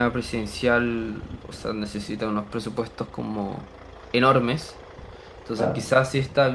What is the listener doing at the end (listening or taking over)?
listening